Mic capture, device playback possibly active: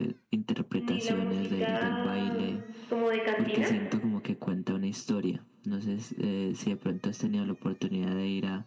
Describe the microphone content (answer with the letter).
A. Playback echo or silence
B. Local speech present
B